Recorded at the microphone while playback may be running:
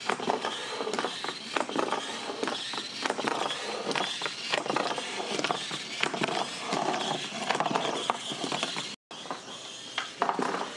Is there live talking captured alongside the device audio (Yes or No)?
No